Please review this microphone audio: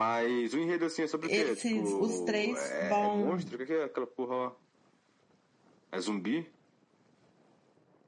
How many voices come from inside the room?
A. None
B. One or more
B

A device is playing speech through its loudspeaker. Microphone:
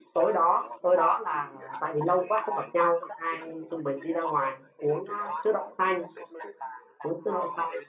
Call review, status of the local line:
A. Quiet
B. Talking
B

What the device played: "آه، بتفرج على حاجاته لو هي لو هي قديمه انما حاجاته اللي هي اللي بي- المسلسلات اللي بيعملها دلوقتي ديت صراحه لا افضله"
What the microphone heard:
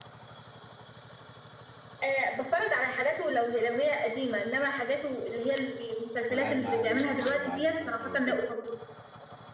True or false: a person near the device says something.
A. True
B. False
A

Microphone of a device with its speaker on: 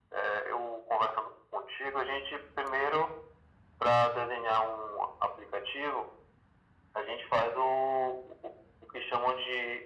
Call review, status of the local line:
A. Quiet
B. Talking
A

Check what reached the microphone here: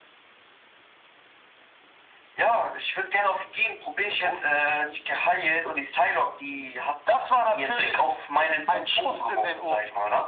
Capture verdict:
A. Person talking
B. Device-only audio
B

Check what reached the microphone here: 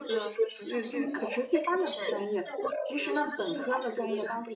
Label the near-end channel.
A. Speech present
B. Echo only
A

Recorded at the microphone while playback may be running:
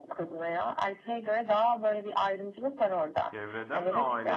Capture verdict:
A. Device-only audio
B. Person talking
B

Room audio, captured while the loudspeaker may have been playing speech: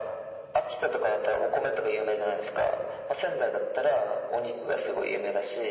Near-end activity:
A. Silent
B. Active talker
A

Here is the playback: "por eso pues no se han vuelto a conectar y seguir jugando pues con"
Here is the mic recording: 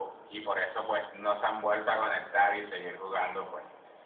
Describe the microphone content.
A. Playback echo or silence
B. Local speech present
A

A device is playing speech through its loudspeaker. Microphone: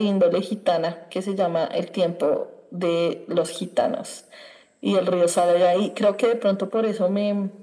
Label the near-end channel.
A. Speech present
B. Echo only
B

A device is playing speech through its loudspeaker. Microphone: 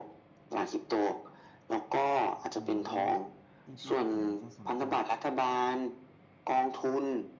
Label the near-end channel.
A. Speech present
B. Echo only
A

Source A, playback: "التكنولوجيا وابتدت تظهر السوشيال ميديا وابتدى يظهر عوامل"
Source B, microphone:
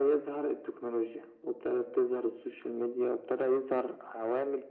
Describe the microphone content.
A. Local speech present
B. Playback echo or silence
B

